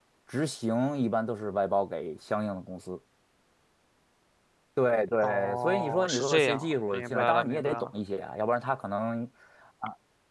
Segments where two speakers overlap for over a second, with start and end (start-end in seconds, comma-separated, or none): 5.2-7.9